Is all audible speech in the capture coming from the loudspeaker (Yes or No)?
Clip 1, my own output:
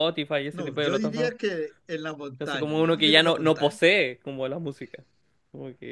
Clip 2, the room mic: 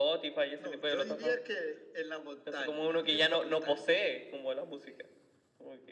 Yes